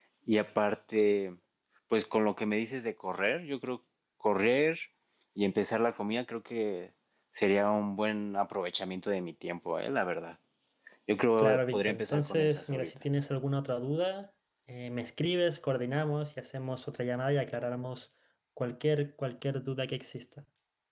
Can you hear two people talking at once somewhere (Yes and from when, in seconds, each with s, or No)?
Yes, from 11.4 s